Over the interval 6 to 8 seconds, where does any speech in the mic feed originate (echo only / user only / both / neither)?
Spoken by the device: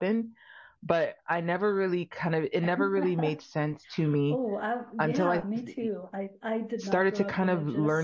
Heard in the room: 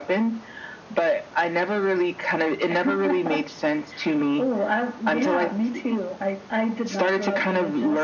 echo only